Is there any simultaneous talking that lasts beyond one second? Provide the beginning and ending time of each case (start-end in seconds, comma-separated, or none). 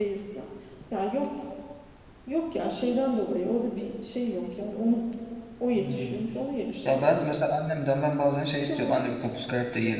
none